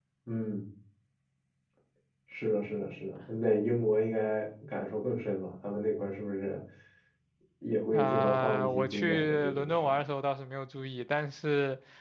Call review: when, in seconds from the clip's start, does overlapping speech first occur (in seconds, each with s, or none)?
7.9 s